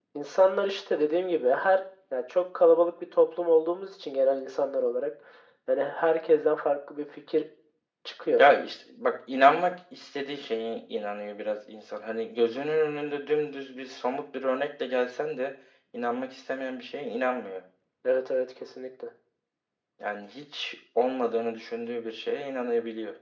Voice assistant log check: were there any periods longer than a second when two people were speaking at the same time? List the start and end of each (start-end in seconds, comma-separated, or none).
none